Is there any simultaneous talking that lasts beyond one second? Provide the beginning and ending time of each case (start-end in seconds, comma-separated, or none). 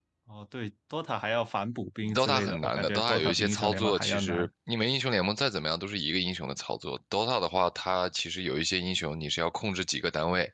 2.1-4.5